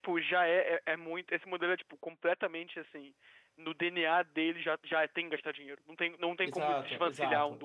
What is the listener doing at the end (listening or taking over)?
taking over